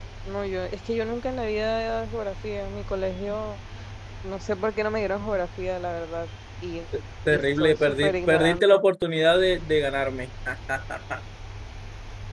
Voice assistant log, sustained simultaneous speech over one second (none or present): present